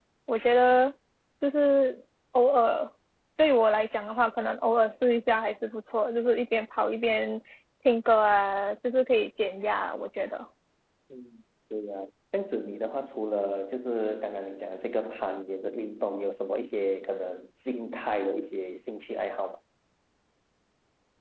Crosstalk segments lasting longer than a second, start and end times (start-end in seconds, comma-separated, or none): none